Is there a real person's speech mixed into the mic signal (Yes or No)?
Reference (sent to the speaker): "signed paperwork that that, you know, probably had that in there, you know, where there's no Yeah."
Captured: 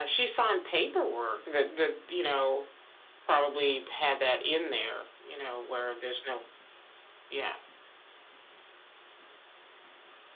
No